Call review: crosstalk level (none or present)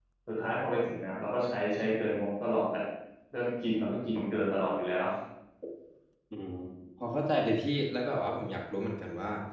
none